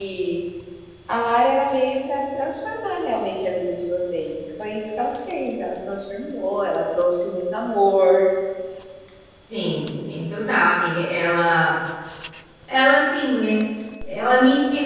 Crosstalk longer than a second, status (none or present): none